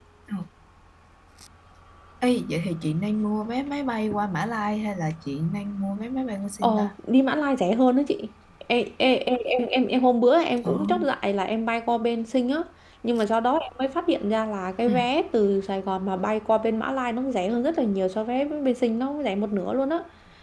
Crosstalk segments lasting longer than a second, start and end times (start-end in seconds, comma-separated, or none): none